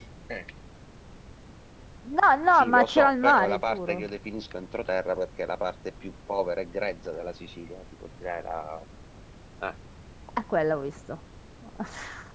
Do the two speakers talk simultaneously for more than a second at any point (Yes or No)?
Yes